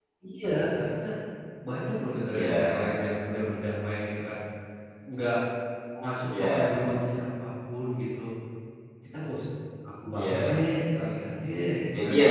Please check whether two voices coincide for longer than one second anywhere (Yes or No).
No